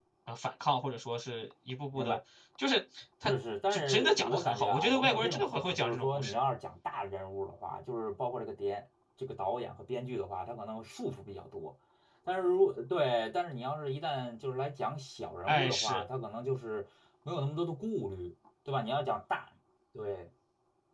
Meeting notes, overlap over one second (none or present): present